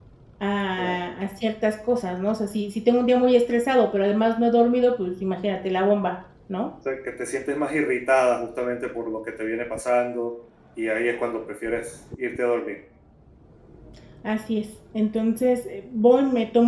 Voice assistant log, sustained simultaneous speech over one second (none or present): none